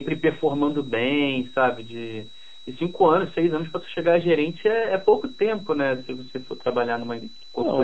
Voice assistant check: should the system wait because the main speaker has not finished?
No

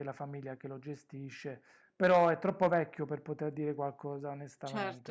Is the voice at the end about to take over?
Yes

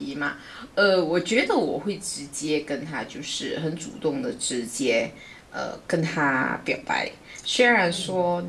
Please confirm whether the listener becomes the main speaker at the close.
No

